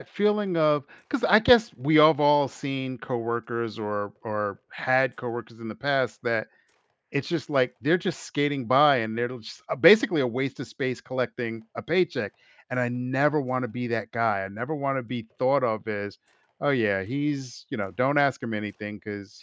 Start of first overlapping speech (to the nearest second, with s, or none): none